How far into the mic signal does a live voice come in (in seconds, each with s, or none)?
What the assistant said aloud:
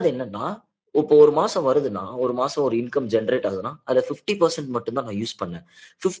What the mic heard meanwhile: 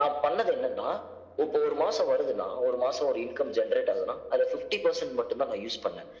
none